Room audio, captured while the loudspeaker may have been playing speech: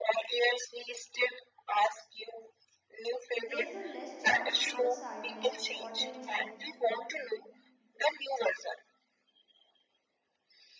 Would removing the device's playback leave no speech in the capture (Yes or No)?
No